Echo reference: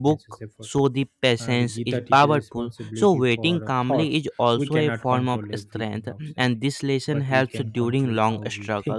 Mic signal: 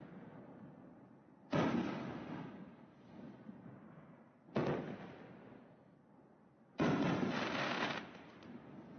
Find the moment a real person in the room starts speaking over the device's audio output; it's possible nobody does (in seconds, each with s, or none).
none